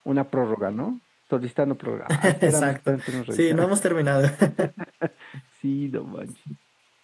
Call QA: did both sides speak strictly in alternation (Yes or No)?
No